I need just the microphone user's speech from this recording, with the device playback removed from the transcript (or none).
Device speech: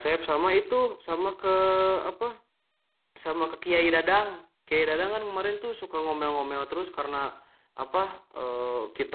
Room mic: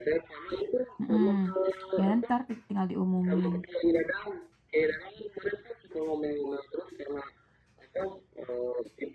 Mm-mm. ya ntar ti- tinggal diumumin